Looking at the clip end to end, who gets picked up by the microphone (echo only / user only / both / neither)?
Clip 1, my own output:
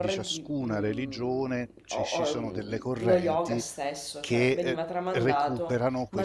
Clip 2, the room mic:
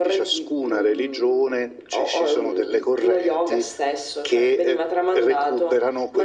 echo only